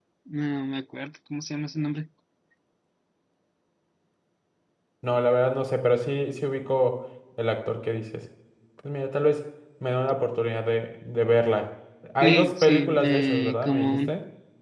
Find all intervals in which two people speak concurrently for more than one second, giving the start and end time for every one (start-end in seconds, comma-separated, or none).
12.2-14.1